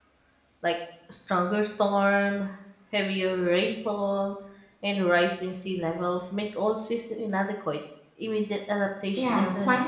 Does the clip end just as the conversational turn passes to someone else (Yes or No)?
Yes